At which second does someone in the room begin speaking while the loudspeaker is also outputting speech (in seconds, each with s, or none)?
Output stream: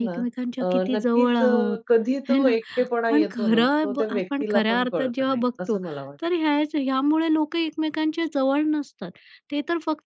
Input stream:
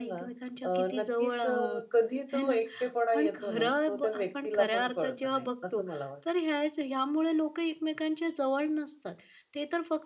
none